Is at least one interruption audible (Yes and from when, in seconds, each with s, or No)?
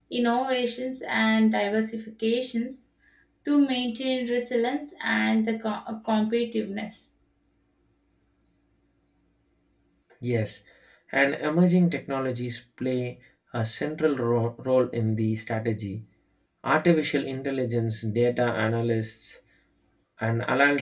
No